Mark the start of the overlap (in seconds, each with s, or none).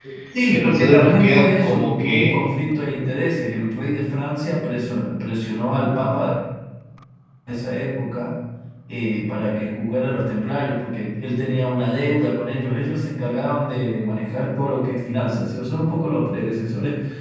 0.5 s